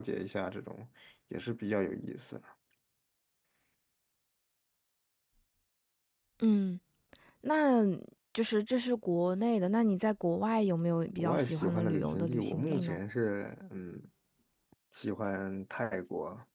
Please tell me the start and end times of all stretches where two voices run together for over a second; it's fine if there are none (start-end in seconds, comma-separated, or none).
11.1-13.0